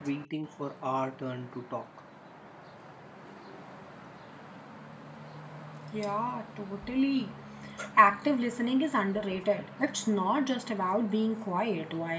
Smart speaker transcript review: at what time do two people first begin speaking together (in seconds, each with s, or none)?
none